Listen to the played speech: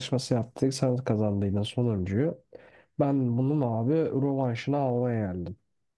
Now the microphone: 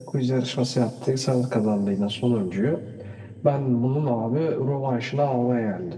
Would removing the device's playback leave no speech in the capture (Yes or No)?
Yes